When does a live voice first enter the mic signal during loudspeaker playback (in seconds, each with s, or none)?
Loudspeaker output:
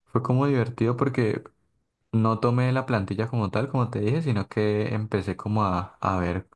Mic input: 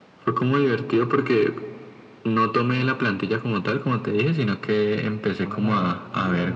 5.4 s